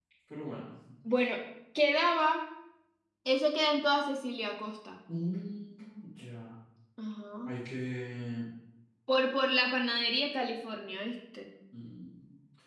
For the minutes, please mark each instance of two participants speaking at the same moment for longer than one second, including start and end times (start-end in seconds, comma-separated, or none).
none